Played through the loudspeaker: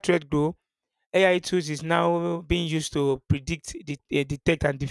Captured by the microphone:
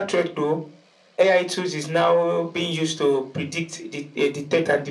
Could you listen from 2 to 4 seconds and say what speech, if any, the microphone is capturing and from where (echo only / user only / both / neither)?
echo only